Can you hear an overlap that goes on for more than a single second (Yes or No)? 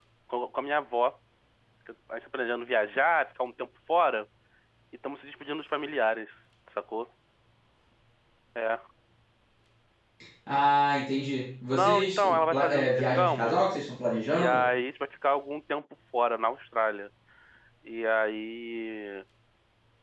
Yes